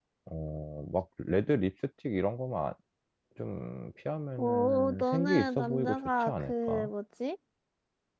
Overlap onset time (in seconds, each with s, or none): 4.4 s